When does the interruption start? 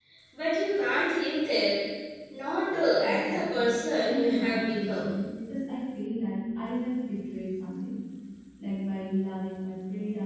3.0 s

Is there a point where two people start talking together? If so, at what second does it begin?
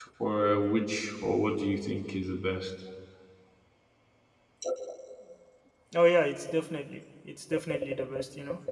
none

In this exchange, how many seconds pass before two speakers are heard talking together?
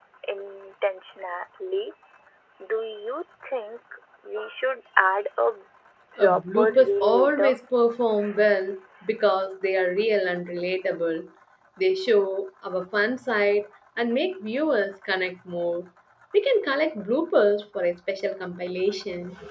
6.2 s

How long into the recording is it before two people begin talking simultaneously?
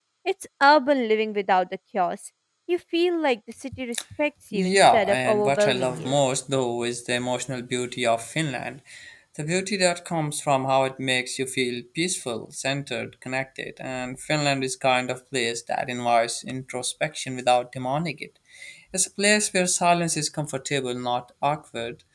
4.5 s

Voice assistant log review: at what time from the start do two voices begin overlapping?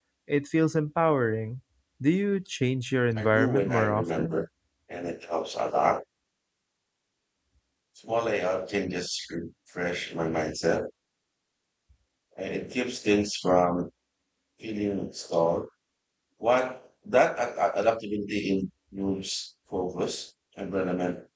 3.2 s

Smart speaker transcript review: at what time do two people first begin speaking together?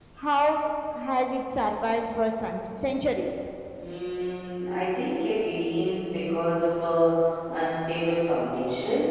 none

